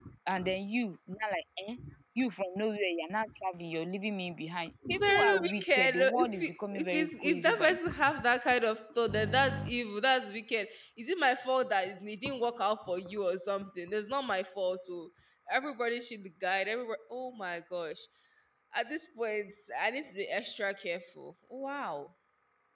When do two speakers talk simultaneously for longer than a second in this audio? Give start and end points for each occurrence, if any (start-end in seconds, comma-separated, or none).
4.9-7.8